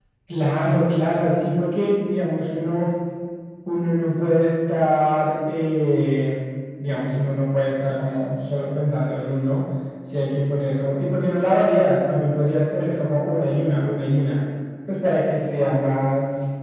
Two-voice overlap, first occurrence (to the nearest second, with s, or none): none